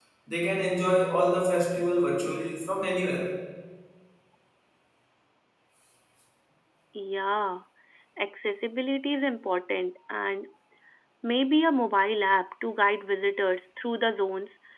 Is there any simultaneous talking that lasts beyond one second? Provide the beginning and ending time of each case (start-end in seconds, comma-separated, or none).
none